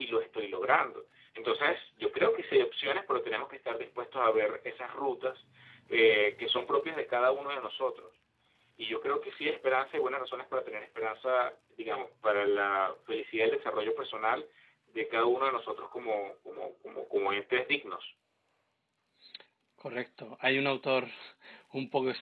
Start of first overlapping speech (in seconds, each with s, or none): none